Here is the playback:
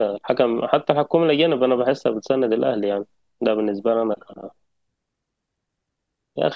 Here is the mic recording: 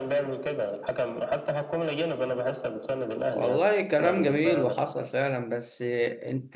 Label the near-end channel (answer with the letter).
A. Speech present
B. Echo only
A